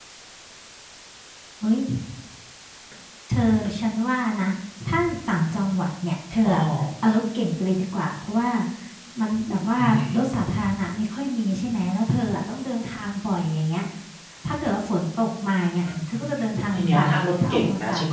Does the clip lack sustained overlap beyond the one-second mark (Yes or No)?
No